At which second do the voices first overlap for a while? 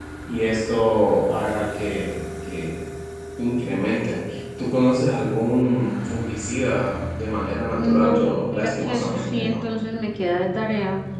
7.8 s

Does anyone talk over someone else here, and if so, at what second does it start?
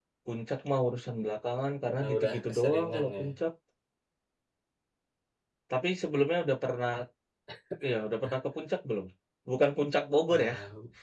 2.0 s

